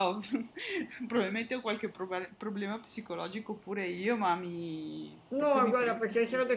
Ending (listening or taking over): taking over